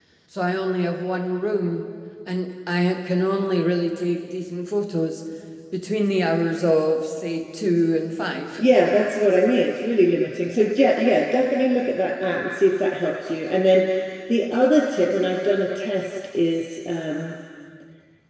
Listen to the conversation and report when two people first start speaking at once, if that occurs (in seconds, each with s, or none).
none